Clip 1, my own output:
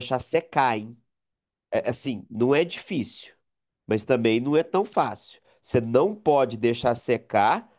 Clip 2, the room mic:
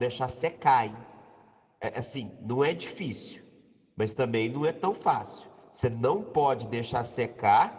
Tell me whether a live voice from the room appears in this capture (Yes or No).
No